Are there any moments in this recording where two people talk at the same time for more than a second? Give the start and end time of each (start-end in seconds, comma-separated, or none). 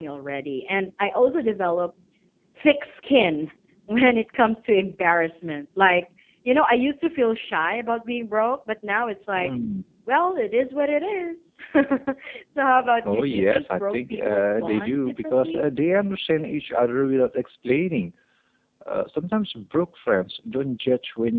13.1-15.7